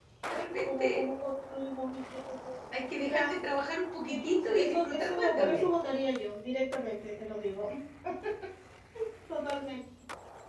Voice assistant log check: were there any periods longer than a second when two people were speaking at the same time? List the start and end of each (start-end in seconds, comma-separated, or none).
4.1-5.6